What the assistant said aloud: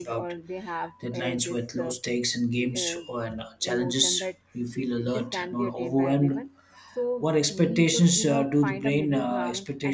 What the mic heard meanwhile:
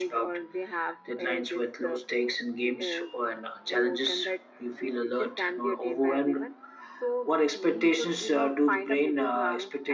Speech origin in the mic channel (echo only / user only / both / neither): echo only